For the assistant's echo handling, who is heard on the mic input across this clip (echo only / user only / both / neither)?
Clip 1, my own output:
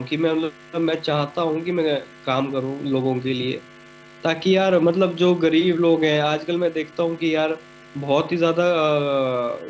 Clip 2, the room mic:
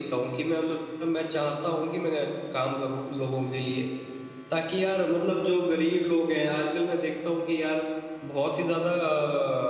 echo only